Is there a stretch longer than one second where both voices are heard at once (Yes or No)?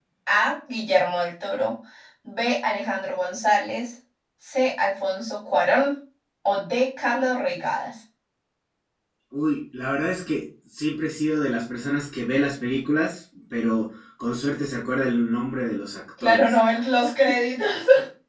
No